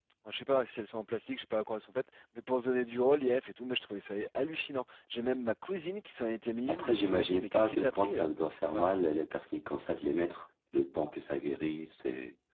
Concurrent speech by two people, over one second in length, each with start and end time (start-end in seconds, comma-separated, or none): 6.7-8.3